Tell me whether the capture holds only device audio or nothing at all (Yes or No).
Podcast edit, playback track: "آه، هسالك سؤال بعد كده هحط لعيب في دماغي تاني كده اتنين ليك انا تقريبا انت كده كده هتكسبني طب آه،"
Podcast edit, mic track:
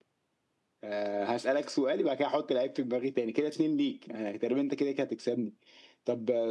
Yes